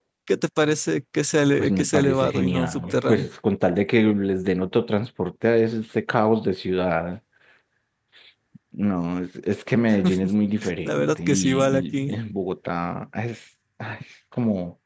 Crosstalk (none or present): present